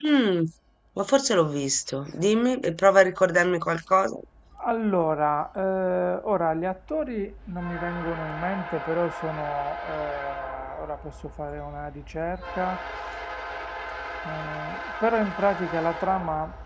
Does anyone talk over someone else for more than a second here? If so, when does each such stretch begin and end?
none

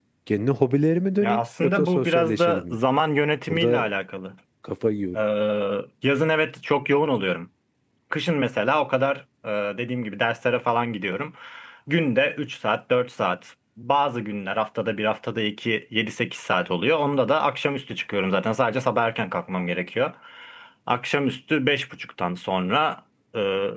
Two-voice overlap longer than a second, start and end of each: 1.2-2.8

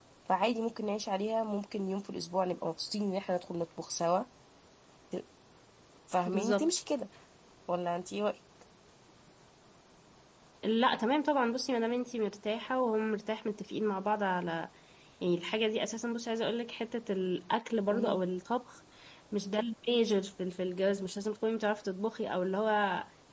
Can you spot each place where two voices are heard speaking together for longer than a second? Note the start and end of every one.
none

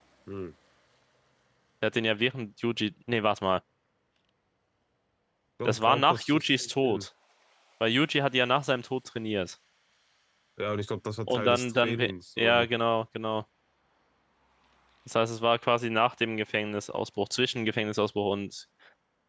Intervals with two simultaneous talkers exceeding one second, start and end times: 5.7-7.1, 11.3-12.7

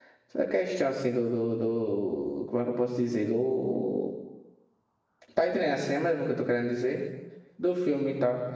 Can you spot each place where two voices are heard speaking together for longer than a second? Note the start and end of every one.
none

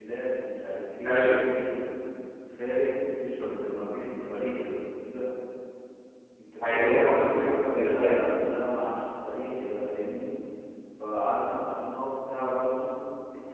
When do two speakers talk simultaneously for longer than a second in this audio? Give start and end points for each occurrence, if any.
6.6-8.2

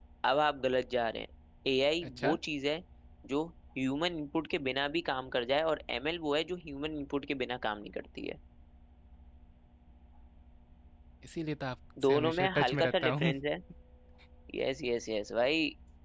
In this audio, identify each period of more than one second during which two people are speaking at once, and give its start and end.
12.0-13.3

